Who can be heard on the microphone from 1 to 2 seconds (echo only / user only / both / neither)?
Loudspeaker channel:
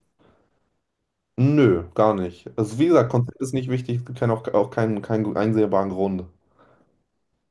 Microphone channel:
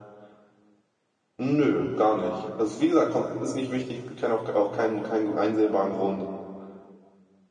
echo only